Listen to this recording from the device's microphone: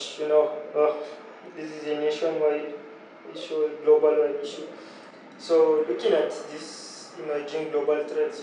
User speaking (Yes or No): No